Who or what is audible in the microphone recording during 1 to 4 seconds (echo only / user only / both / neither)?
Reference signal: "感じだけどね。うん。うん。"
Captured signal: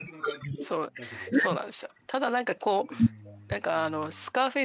both